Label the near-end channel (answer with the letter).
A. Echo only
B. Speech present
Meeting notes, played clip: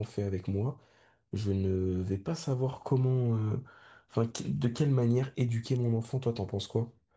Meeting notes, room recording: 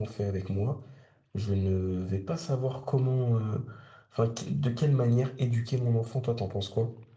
A